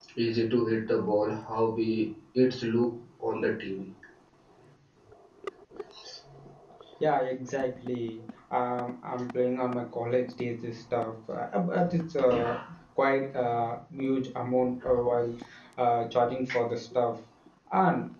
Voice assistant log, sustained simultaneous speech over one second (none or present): none